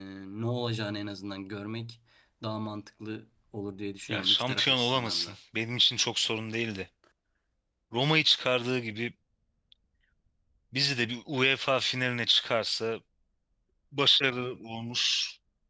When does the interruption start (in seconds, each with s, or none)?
4.1 s